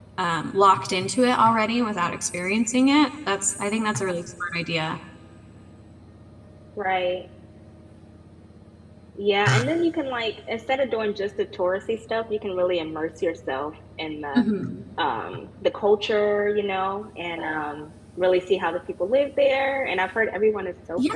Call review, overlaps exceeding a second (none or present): none